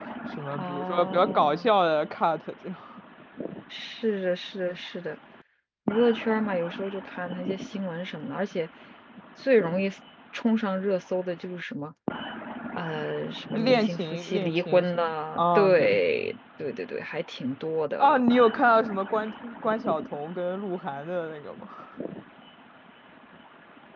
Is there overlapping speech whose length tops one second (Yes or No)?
Yes